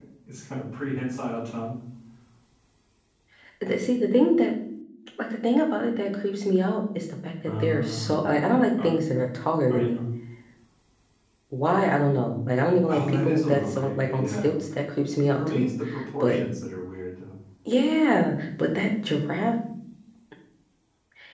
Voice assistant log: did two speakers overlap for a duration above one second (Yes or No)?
Yes